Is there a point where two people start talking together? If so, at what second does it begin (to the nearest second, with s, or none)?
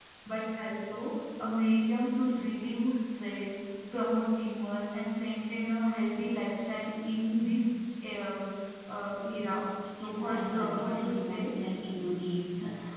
10 s